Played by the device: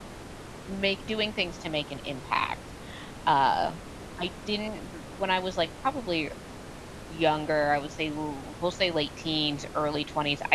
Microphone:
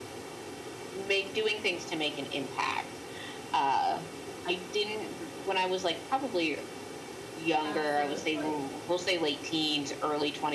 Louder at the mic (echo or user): echo